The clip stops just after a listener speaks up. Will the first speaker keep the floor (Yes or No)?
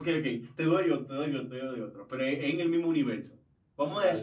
Yes